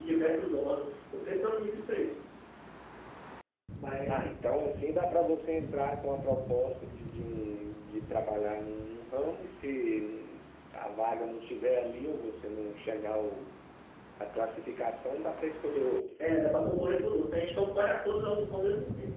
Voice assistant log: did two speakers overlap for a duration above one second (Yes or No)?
No